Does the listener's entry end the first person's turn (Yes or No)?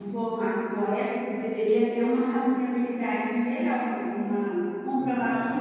No